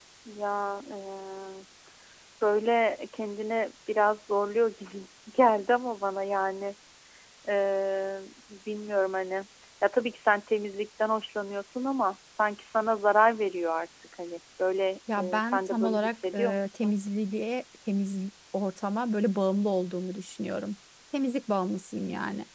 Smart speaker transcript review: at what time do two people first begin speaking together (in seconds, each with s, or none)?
15.1 s